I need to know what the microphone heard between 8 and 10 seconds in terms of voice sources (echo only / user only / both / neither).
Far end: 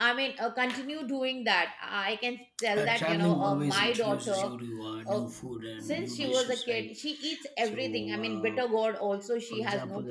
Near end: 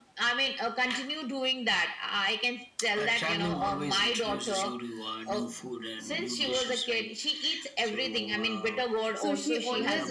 both